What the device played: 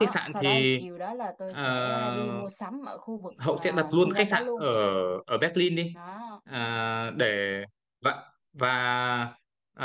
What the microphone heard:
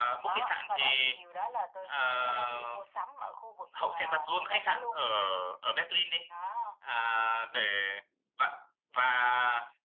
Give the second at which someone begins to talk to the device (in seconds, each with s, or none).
none